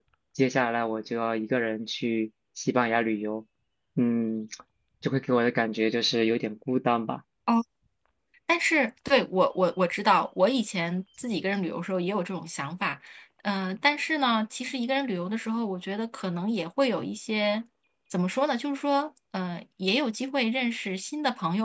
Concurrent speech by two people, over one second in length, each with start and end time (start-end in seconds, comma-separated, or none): none